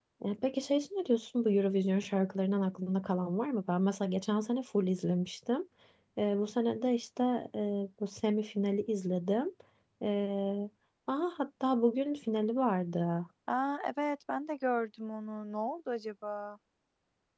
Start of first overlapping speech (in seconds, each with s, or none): none